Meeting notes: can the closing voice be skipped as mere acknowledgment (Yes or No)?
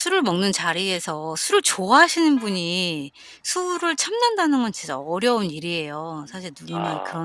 Yes